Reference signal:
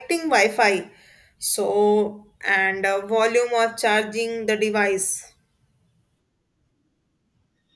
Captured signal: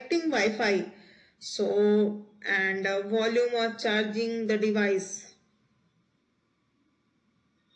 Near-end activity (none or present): none